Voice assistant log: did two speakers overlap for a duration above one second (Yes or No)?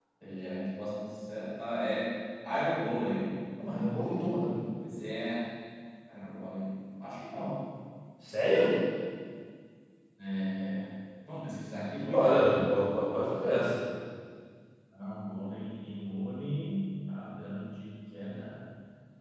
No